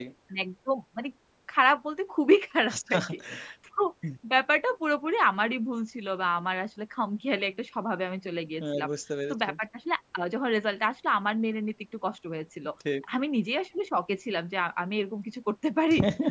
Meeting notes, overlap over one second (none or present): none